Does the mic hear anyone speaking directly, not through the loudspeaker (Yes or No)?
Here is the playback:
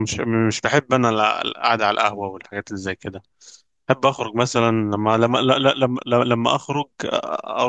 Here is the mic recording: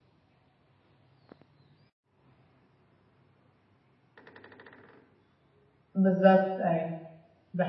Yes